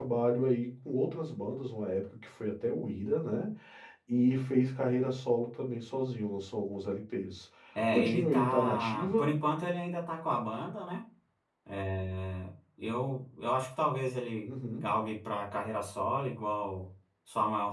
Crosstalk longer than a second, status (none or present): present